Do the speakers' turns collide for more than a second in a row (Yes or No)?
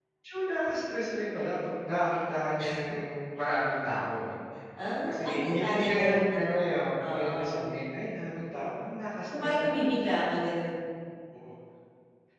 Yes